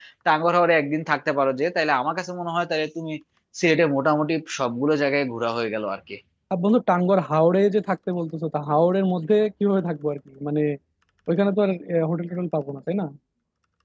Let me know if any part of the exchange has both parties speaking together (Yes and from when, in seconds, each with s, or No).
No